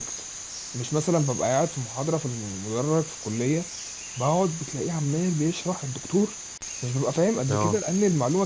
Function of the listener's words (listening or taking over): listening